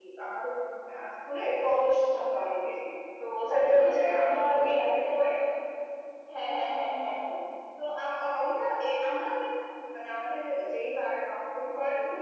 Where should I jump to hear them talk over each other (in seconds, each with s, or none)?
3.5 s